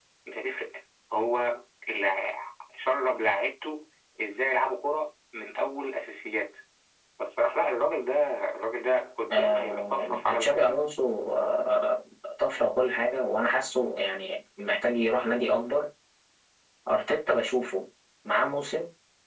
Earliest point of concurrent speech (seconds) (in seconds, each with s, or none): 9.3 s